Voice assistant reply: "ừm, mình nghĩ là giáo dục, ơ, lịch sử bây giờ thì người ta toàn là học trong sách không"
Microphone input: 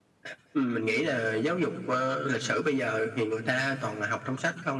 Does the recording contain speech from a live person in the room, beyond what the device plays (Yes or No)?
No